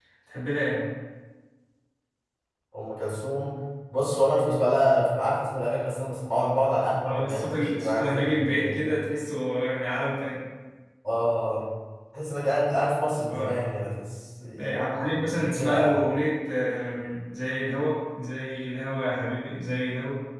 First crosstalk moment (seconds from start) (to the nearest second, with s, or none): 7 s